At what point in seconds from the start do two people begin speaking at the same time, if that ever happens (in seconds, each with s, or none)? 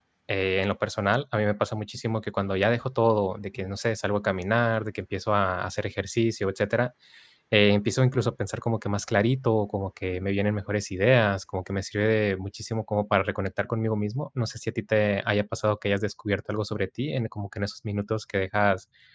none